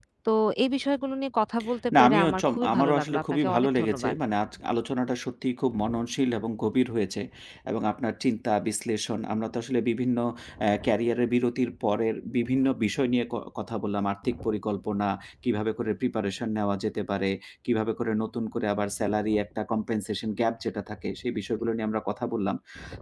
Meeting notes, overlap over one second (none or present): present